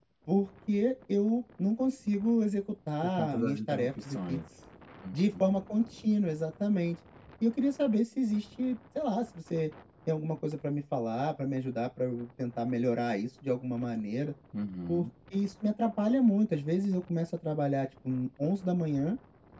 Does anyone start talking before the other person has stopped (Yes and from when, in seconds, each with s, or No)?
Yes, from 3.0 s